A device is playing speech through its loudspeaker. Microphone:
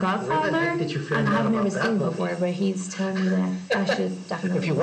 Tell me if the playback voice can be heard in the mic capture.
Yes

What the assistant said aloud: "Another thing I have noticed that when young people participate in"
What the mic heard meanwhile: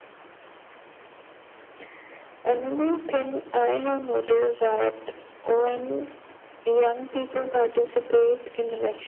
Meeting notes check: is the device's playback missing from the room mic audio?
No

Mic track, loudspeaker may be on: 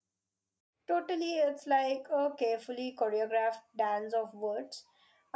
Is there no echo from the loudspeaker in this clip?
Yes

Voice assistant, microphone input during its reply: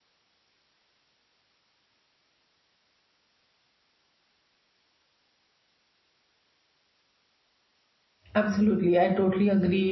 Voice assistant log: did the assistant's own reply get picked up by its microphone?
No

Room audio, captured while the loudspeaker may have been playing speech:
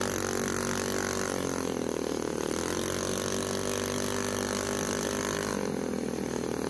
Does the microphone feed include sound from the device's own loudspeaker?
No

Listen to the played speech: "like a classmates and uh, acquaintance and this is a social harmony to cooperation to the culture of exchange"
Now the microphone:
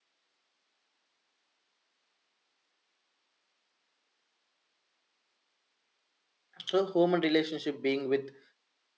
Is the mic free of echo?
Yes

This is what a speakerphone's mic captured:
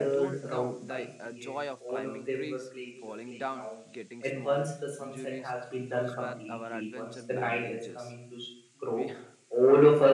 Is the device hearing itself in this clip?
Yes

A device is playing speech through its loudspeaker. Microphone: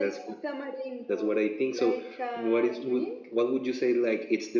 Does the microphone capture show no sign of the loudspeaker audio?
No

